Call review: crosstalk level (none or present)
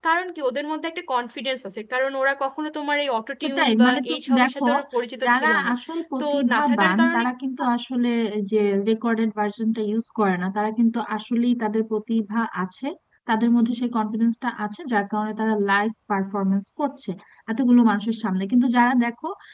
present